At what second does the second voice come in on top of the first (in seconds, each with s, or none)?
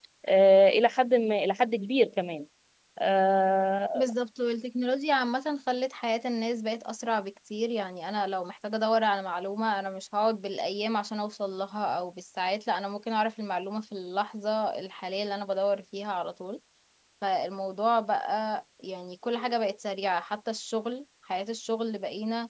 none